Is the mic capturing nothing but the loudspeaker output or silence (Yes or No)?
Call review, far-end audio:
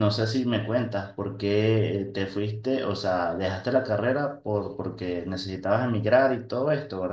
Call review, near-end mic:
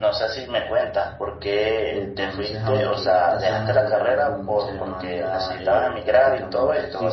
No